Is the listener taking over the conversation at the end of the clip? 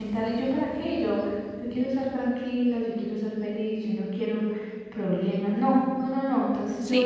Yes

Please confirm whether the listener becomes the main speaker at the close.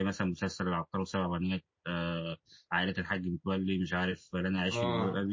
Yes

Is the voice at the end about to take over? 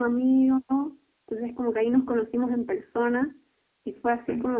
No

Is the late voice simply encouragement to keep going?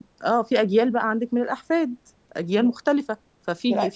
Yes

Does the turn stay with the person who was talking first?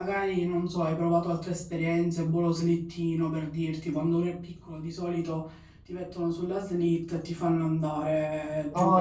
No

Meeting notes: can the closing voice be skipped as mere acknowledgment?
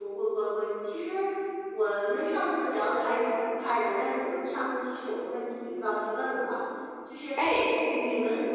Yes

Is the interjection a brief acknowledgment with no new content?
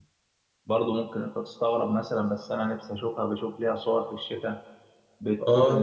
No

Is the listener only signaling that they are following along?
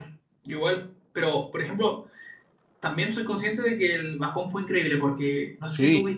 Yes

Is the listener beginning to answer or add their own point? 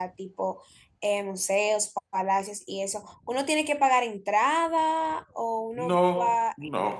Yes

